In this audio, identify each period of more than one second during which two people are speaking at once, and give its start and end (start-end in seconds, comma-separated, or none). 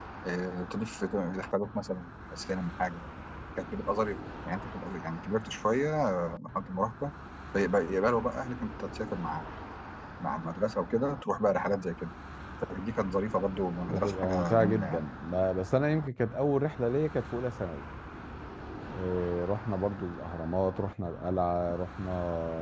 13.9-15.1